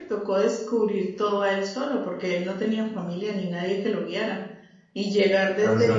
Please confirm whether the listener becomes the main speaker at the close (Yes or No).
No